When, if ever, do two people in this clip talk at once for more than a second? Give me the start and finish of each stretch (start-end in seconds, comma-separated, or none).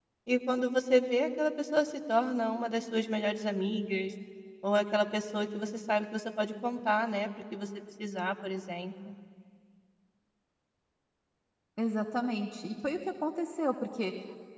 none